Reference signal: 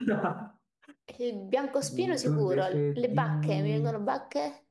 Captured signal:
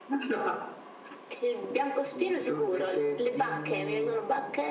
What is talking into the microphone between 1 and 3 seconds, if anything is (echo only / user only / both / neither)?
echo only